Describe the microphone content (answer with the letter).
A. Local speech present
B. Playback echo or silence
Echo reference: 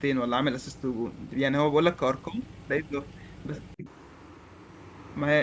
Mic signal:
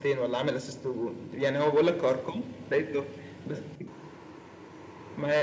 B